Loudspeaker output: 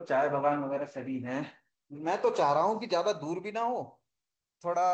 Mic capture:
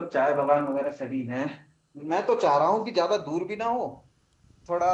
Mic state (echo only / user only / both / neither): echo only